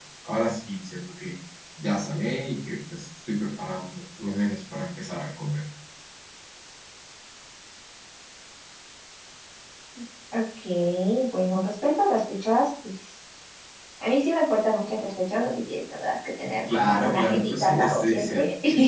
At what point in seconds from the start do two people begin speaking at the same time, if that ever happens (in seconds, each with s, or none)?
16.6 s